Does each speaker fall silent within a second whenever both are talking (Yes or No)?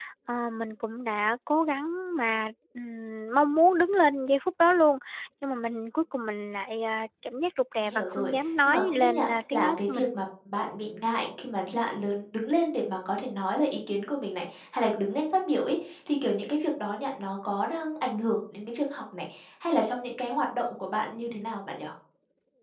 No